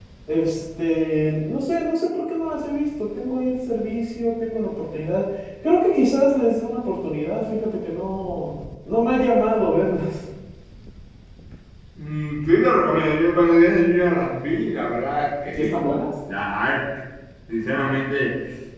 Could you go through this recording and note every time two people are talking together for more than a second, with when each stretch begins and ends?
none

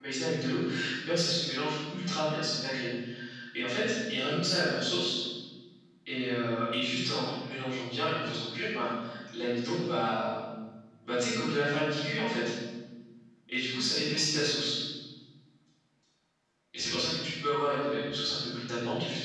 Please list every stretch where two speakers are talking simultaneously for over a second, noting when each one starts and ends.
none

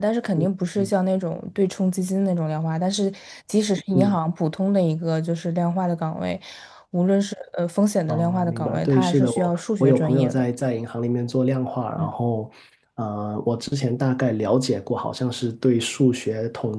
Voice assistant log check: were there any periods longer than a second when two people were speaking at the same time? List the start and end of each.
8.1-10.4

